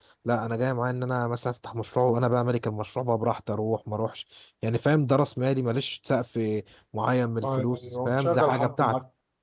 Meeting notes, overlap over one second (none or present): present